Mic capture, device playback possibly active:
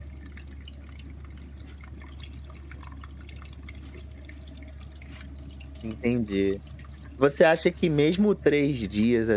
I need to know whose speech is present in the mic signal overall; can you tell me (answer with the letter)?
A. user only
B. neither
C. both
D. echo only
A